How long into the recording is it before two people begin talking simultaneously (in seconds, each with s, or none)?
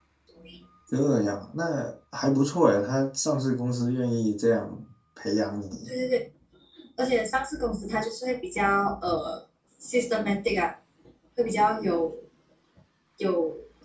none